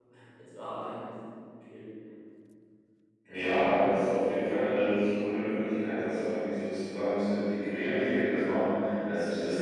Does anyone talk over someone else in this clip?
No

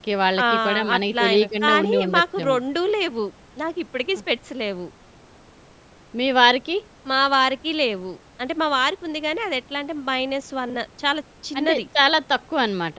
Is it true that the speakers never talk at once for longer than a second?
No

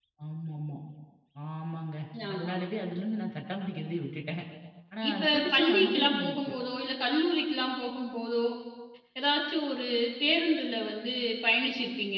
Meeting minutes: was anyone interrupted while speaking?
Yes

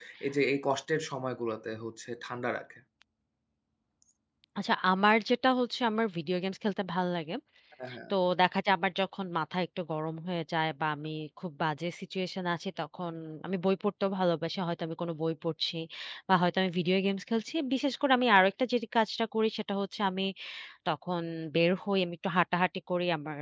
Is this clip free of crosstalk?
Yes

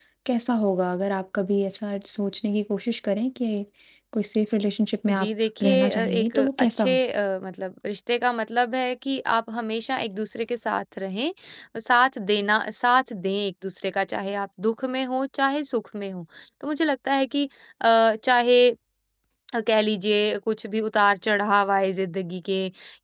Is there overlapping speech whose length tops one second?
Yes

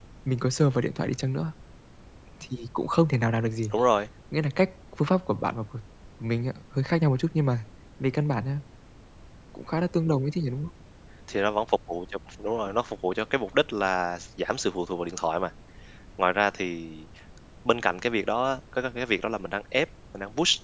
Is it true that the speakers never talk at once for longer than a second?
Yes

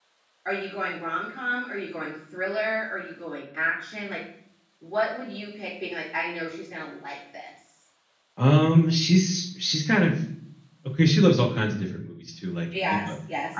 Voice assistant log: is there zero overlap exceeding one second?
Yes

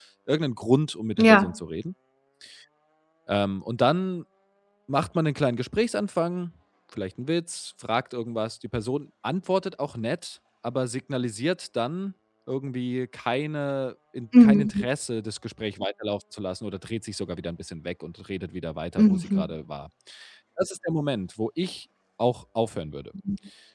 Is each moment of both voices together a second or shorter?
Yes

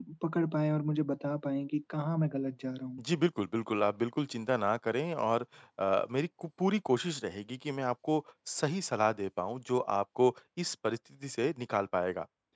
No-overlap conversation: Yes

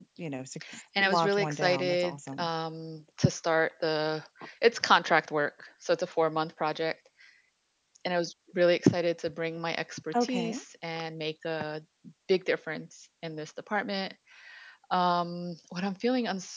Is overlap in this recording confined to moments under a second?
No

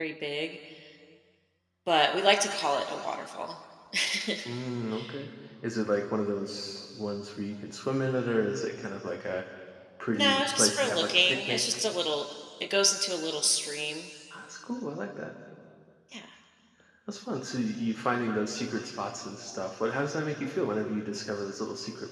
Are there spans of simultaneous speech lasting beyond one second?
Yes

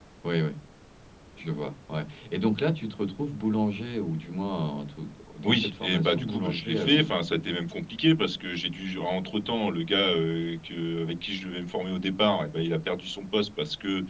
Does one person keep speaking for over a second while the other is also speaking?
Yes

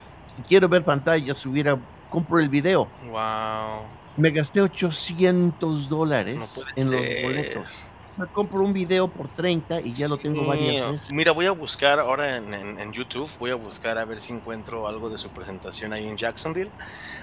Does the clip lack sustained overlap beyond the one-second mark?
No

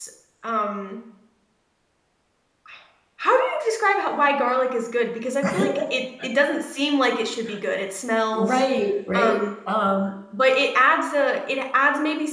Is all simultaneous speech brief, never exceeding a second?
Yes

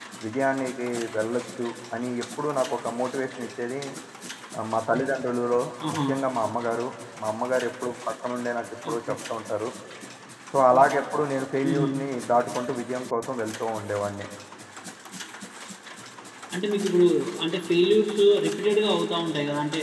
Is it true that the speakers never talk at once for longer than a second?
Yes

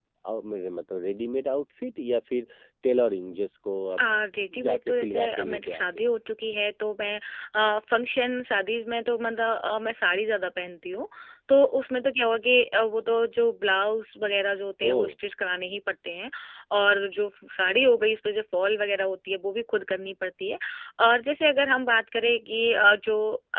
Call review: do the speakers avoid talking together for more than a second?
No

